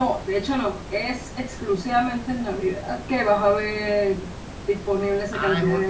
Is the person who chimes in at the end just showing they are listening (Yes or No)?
No